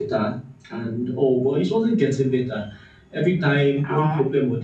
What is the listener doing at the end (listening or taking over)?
listening